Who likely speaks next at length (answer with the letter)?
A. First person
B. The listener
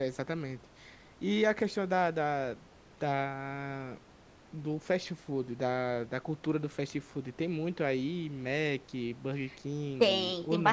B